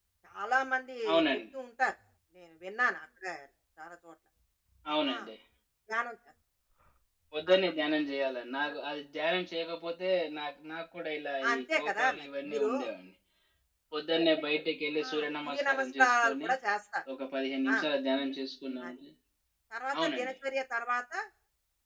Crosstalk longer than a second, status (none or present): present